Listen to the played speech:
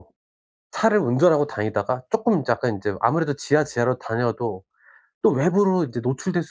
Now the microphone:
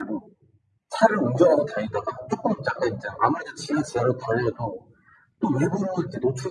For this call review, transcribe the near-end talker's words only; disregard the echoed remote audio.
none

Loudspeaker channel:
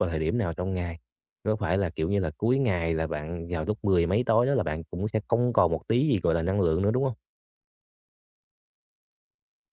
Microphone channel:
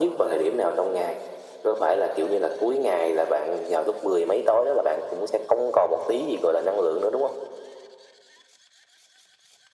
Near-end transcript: none

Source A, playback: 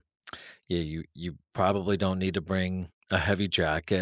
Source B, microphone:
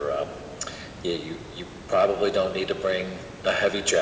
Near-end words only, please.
none

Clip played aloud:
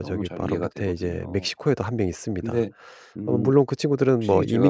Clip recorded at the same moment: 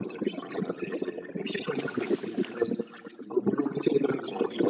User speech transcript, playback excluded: none

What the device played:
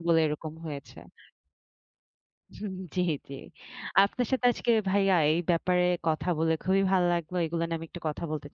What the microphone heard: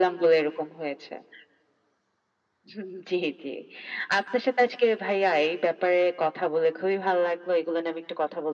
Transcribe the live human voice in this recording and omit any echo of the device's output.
none

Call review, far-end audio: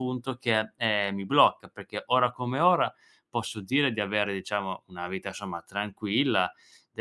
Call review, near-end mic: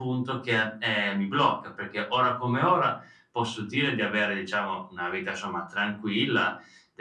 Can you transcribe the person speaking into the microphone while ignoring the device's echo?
none

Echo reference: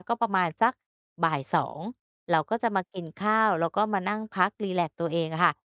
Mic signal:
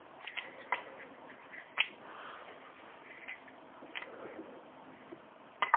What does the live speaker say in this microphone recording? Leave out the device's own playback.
none

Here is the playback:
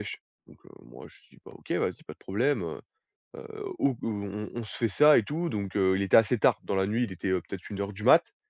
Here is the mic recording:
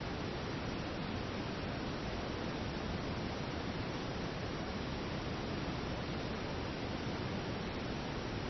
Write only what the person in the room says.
none

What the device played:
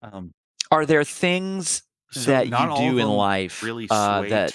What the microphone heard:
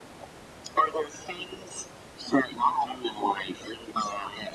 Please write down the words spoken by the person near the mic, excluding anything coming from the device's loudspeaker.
none

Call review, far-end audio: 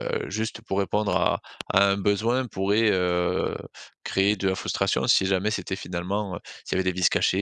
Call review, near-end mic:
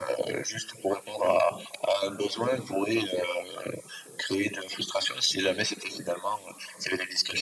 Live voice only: none

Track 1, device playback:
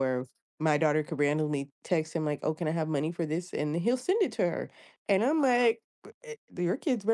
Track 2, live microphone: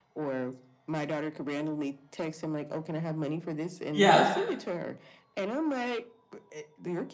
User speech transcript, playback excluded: Yeah.

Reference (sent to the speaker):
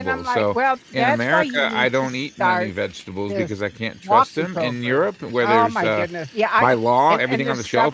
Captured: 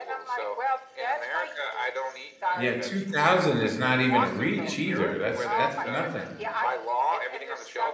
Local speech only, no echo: Yeah, 2,000 is not even a reach either. That's that's nothing.

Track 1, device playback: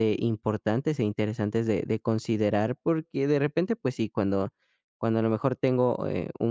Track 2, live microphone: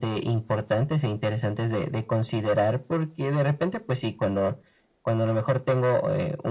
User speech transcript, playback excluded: none

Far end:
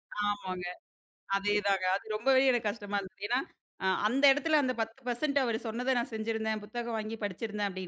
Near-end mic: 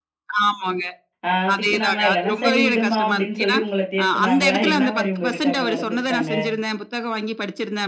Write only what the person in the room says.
அ திட்டுனாங்களா? இல்லன்னா சரி விடுமா அப்படின்னு சொல்லி உங்கள தேத்துனாங்களா? என்ன மாரி உங்ககிட்ட அப்ப நடந்துக்கிட்டாங்க?

